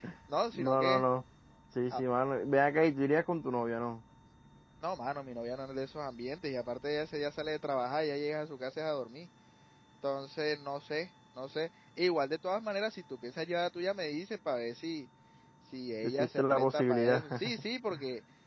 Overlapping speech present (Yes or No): Yes